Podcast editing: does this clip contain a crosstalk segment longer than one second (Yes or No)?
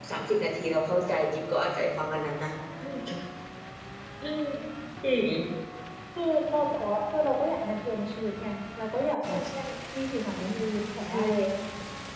No